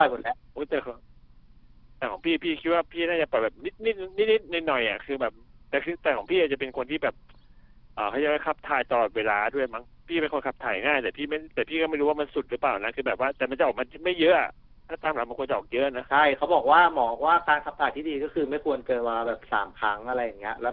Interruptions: none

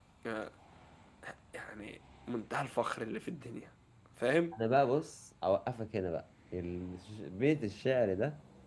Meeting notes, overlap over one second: none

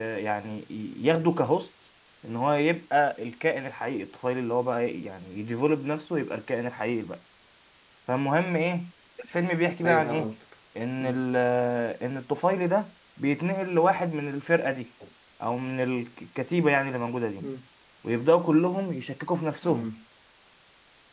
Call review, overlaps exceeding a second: none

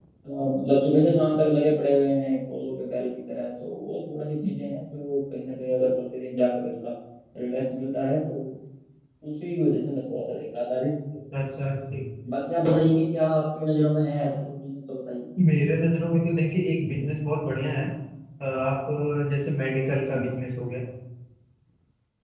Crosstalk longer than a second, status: none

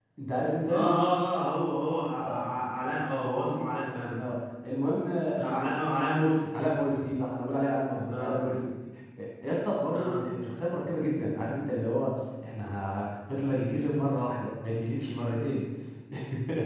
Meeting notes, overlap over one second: none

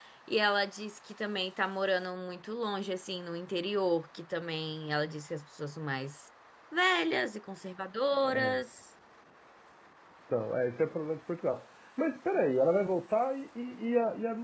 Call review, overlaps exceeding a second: none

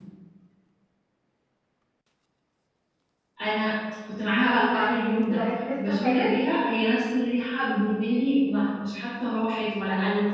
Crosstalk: present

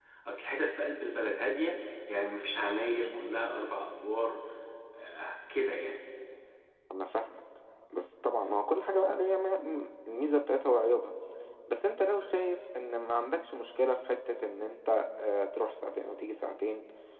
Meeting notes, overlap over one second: none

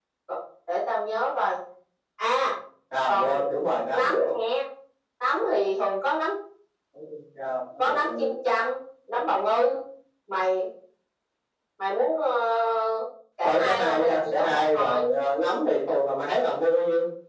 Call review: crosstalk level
present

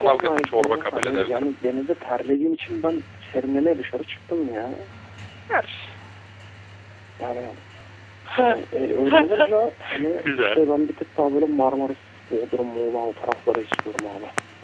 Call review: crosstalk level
present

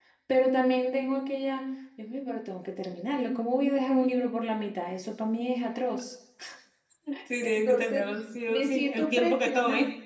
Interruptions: present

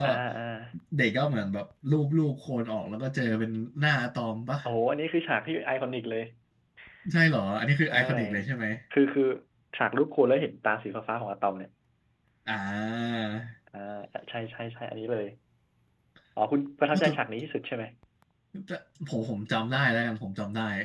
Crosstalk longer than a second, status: none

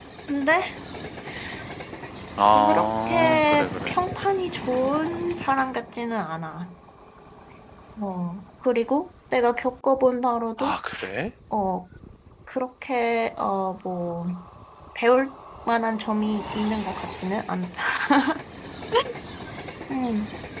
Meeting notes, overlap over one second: present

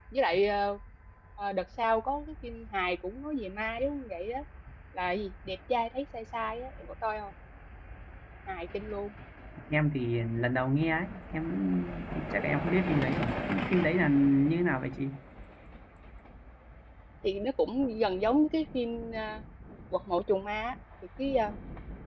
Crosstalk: none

